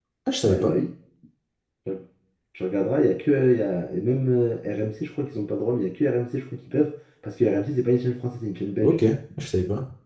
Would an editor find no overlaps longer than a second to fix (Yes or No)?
Yes